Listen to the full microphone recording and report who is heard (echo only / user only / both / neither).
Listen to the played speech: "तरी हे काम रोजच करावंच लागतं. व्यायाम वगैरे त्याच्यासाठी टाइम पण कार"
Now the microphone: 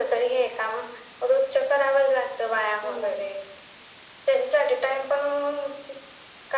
both